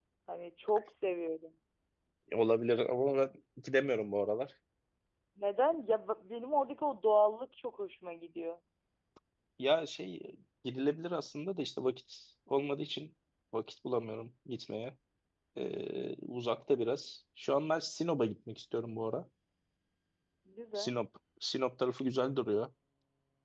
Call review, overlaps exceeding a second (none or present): none